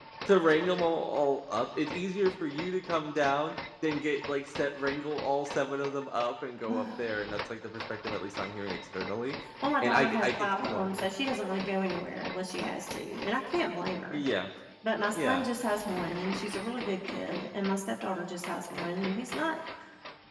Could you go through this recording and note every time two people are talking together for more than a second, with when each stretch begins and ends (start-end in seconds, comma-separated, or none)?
9.8-11.1